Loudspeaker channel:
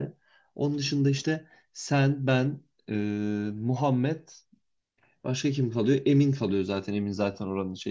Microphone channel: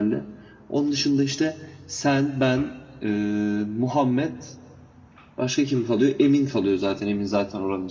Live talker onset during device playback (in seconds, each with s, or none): none